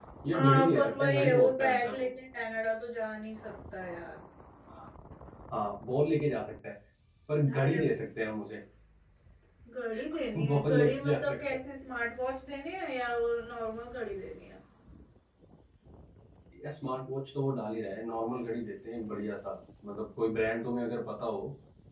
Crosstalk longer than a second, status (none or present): present